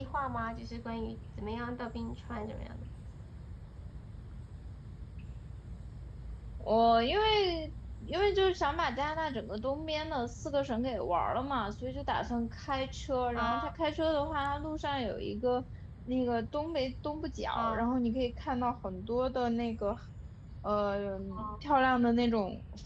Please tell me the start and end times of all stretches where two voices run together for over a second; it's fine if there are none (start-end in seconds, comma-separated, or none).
none